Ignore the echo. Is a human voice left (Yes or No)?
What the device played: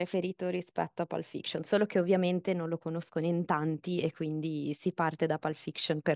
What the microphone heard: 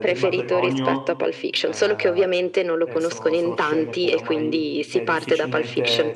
Yes